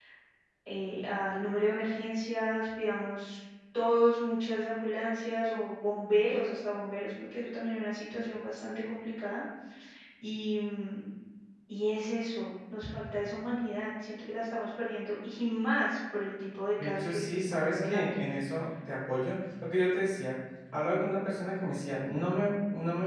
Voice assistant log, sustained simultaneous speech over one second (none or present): present